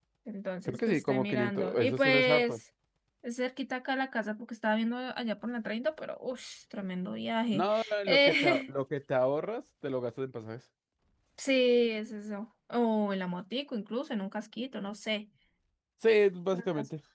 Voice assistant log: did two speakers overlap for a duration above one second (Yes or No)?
Yes